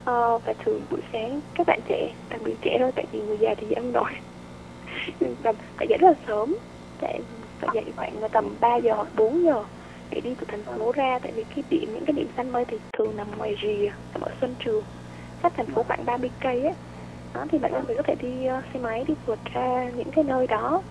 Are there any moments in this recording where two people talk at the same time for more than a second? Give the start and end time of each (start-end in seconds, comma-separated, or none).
7.6-9.1